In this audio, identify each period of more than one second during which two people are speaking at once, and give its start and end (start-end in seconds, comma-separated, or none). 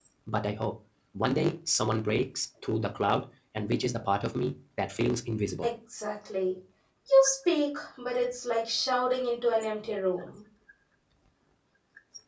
none